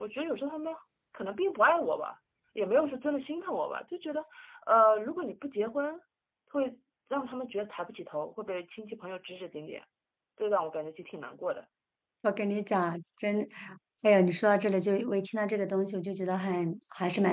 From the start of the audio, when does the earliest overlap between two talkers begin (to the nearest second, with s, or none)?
none